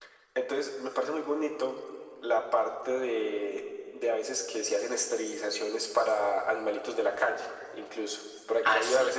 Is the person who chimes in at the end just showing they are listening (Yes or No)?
Yes